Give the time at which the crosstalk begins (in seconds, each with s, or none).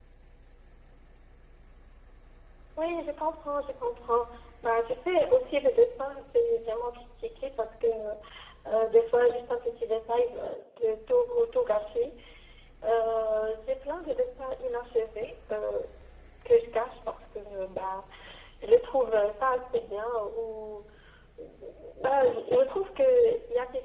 none